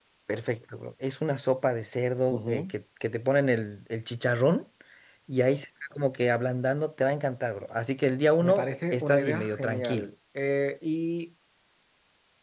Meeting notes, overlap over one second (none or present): present